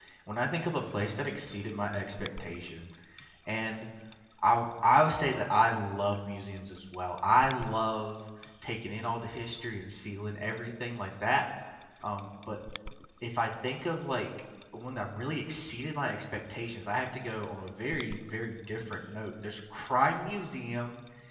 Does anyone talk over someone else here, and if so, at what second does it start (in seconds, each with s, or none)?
none